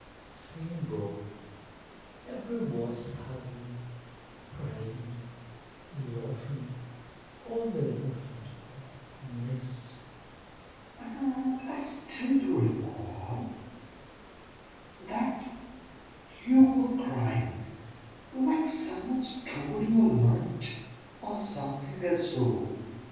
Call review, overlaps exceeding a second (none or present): none